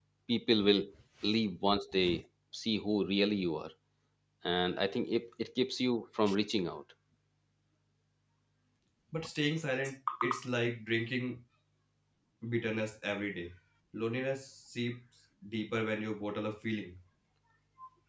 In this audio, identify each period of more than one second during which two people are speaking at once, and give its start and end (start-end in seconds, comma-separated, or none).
none